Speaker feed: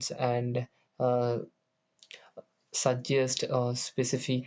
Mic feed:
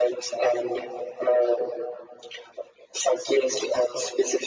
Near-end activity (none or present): none